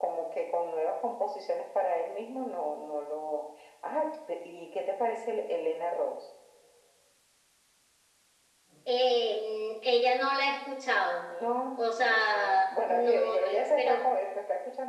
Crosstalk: present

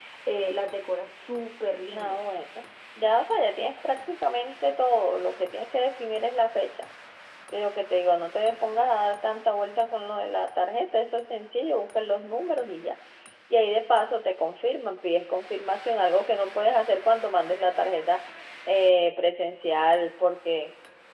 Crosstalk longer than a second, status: none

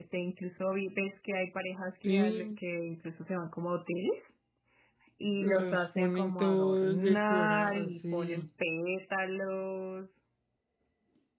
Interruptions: present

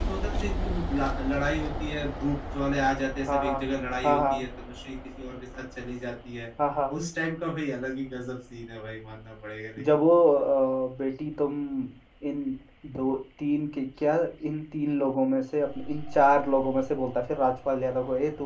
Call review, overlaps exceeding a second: none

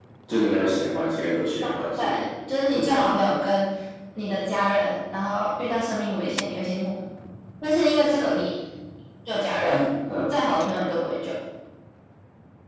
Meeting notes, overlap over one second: none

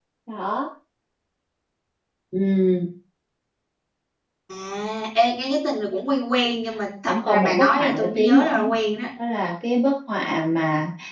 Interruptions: present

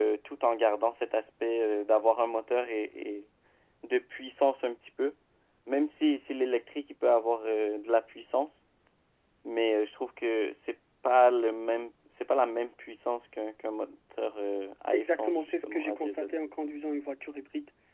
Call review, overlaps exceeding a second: present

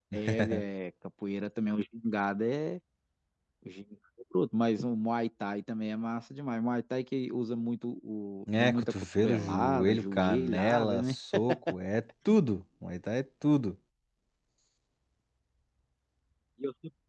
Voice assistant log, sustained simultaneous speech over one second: present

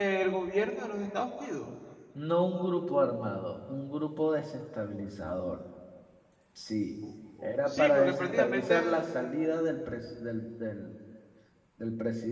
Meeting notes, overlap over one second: present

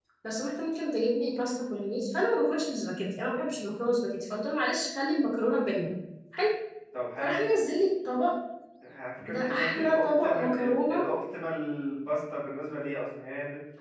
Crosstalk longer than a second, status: present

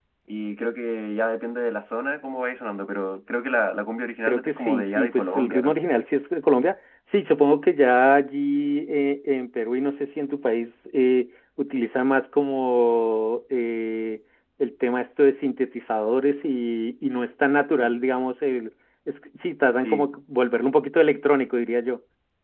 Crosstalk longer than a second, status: present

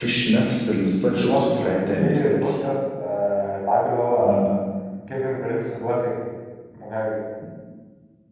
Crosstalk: present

